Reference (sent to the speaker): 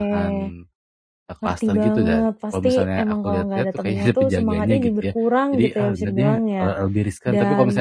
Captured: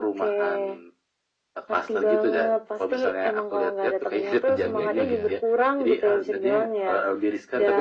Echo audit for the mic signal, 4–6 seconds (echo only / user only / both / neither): both